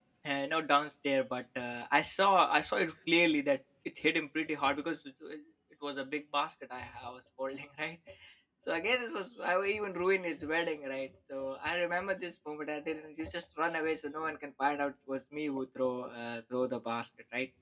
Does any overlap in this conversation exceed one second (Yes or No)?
No